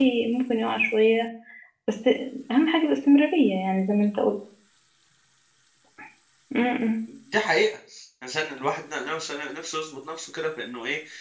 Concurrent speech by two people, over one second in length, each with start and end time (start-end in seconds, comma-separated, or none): none